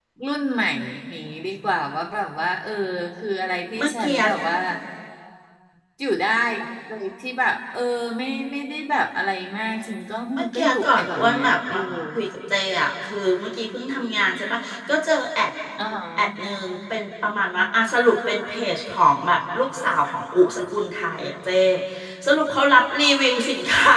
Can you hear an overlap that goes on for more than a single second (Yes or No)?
Yes